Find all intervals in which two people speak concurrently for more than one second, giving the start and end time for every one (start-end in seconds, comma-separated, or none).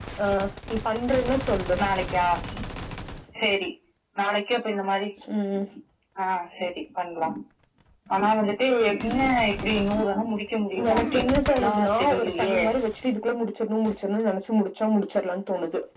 10.9-12.6